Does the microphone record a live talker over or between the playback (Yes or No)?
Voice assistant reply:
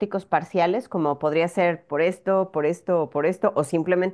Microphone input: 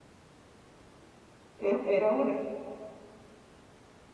Yes